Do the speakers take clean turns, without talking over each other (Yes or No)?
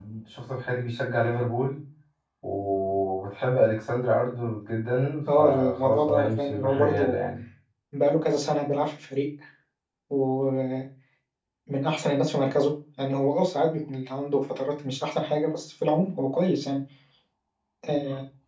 No